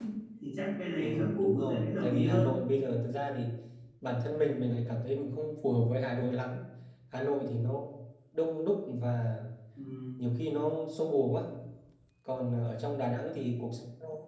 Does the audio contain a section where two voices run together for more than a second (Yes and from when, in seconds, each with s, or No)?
Yes, from 1.0 s